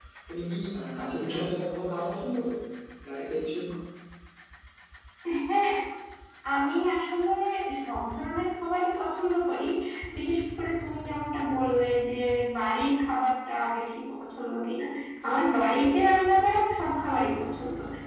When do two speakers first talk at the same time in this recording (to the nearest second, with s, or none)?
none